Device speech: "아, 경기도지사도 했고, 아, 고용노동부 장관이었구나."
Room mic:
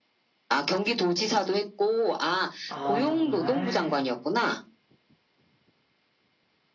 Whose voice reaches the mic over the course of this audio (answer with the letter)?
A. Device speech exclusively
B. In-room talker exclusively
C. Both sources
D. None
C